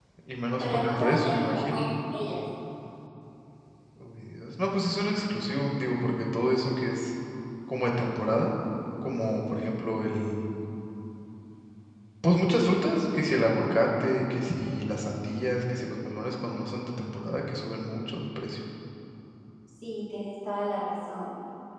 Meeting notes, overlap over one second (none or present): present